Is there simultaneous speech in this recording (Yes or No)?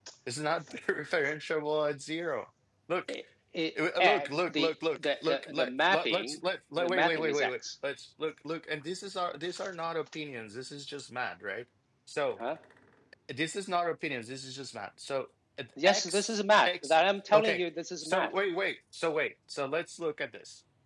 Yes